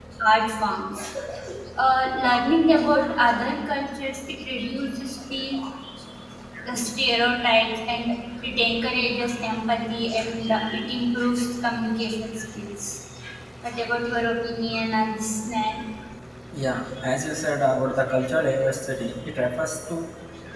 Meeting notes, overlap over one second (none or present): none